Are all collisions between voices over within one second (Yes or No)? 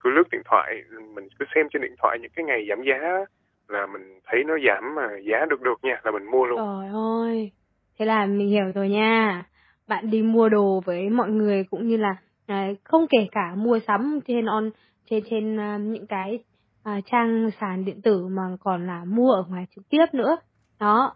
Yes